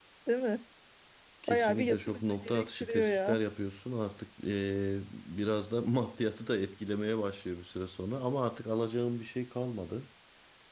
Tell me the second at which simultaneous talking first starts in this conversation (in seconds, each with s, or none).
1.5 s